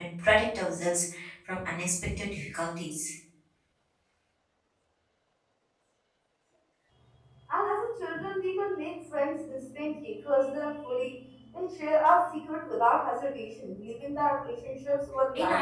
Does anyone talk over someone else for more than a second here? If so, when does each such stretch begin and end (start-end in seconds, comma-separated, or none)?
none